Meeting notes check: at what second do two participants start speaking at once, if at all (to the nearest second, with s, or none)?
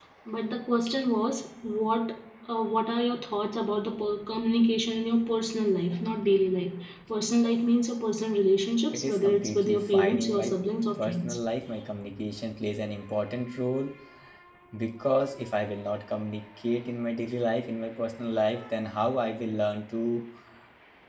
9 s